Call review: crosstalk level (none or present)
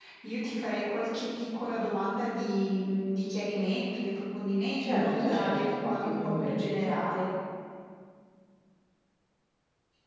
present